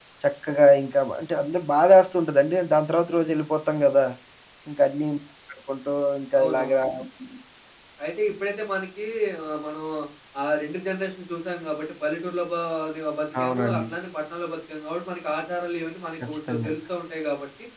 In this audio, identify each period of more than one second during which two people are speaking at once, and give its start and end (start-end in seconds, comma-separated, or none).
none